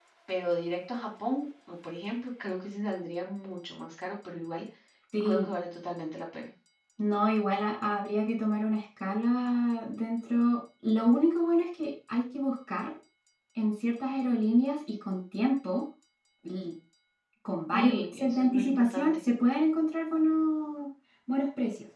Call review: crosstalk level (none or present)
present